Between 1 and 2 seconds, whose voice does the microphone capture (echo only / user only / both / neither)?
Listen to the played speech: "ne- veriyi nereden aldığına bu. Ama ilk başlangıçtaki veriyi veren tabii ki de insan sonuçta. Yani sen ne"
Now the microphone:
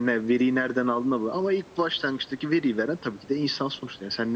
echo only